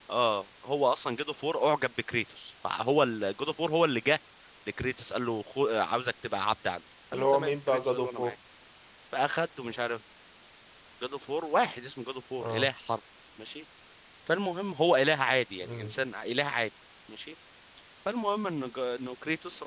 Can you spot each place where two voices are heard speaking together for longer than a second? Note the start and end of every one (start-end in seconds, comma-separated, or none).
7.1-8.3